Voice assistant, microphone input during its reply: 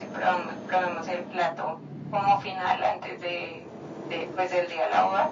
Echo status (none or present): present